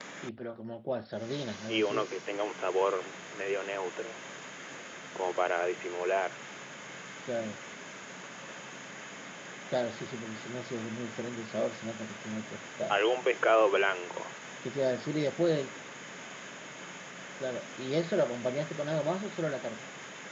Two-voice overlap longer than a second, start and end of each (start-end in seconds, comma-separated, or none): none